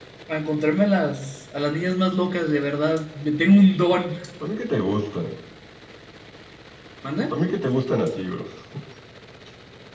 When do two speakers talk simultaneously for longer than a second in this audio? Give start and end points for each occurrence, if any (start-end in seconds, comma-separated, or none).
none